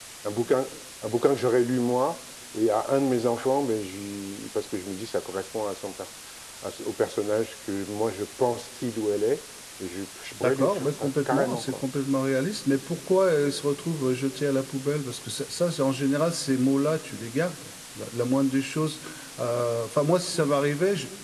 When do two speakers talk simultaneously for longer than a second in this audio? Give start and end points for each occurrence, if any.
10.4-11.7

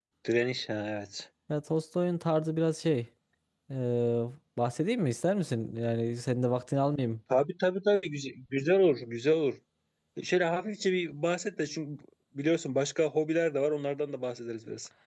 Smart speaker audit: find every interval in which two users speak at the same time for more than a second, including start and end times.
none

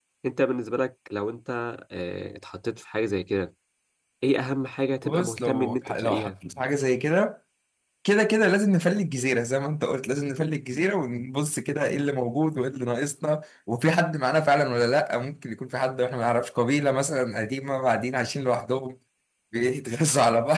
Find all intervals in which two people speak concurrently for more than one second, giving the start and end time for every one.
5.0-6.3

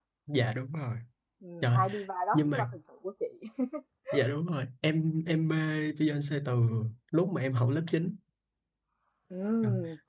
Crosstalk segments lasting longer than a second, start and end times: none

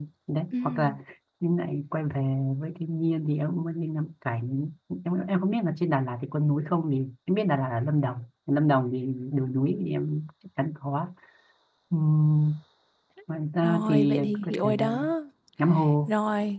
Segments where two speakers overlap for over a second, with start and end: 13.6-15.0

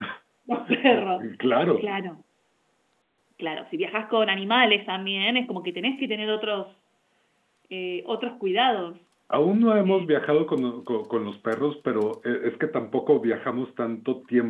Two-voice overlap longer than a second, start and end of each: none

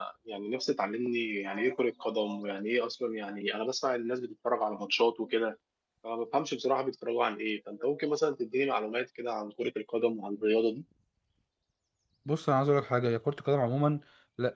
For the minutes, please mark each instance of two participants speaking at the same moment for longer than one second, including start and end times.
none

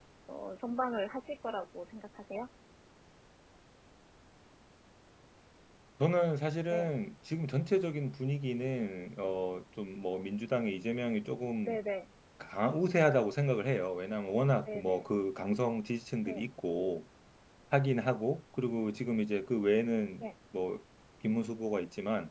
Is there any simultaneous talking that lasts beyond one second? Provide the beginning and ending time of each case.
none

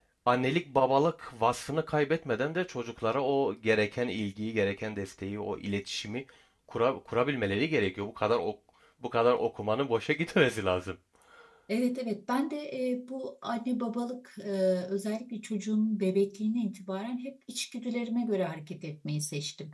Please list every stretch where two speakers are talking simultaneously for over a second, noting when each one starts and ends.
none

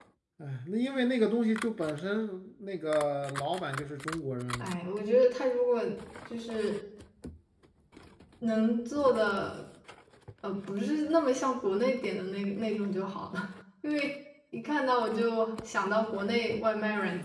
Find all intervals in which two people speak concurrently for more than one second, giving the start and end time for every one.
none

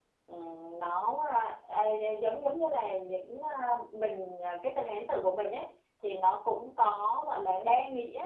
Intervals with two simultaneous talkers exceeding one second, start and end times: none

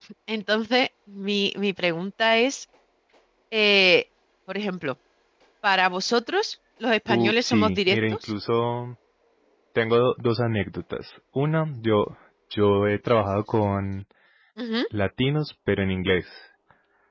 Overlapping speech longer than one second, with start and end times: 7.1-8.3

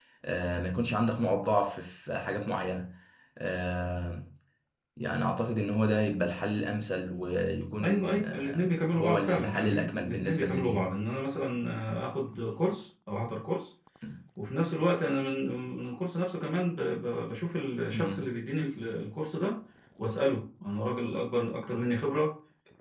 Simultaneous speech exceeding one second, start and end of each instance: 7.8-10.9

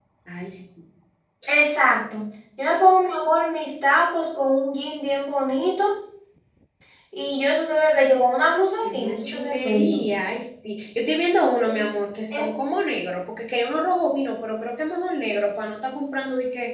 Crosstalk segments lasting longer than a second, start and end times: 8.8-10.0

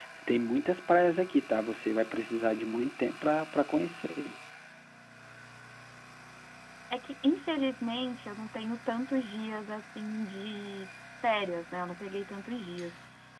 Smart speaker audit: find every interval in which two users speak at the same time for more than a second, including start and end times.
none

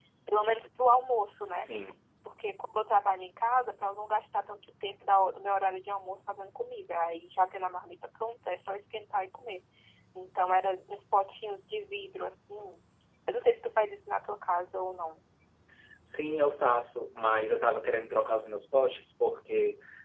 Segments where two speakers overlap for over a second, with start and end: none

